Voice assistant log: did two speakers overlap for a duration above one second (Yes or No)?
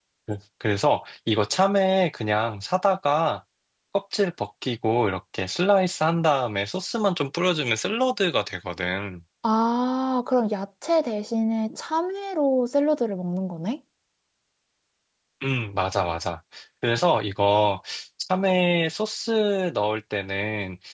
No